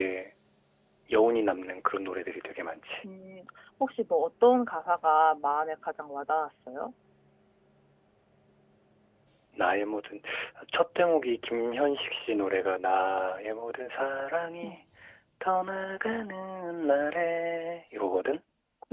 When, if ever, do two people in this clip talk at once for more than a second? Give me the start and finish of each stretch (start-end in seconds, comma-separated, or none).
none